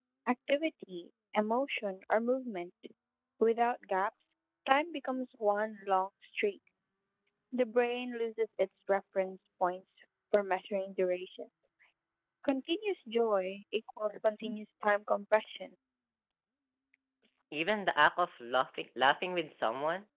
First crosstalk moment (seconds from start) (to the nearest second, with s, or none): none